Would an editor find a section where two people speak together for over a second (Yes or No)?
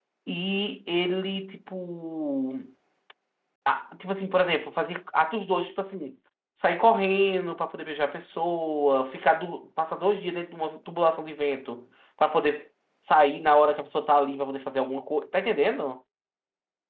No